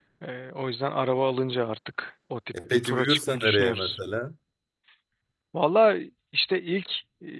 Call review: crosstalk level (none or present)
present